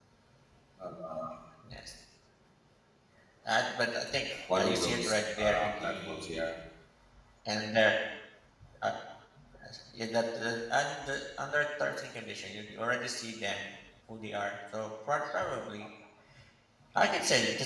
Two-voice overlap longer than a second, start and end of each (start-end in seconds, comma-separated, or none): 4.5-6.4